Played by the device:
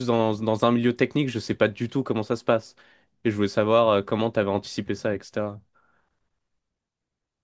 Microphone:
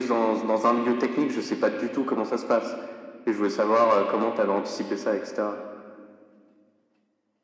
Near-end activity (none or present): none